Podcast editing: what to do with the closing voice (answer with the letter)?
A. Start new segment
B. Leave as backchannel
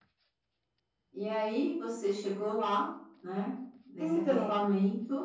B